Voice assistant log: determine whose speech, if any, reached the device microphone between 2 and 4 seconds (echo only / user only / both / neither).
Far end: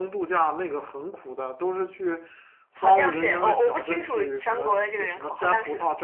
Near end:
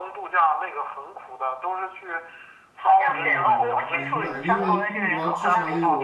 both